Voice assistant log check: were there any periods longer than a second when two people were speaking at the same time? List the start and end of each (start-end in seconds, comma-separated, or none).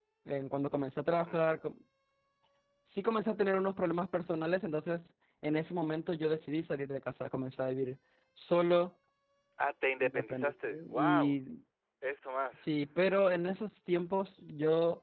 10.0-11.4